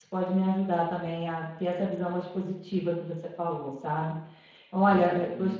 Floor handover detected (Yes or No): No